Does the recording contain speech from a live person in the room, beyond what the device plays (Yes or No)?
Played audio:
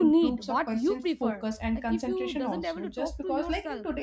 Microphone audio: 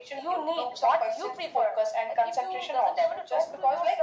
No